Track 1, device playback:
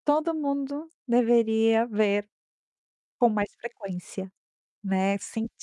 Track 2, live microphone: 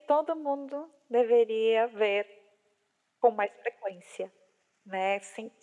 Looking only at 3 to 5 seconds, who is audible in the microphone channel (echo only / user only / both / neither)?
echo only